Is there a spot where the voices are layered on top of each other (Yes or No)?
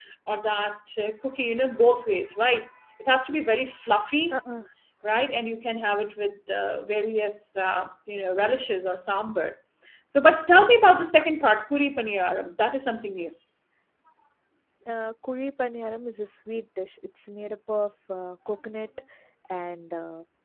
No